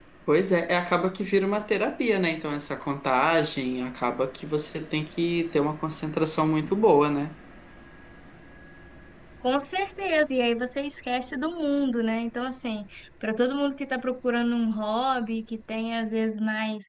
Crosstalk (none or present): none